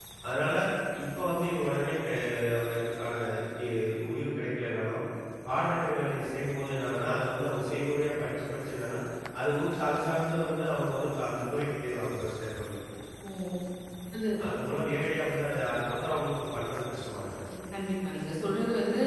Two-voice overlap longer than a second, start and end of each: none

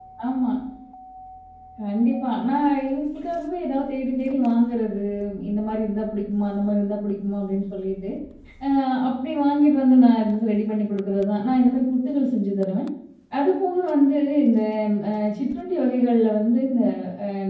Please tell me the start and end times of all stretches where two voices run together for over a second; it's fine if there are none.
none

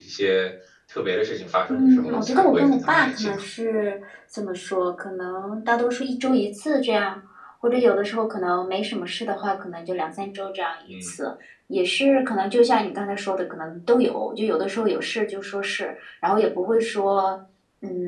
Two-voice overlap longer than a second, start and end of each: 1.7-3.4

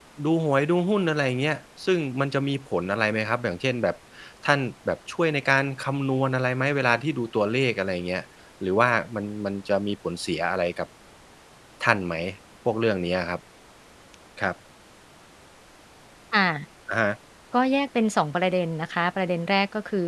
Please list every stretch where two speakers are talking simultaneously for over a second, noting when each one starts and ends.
none

